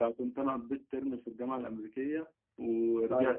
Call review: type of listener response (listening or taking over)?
listening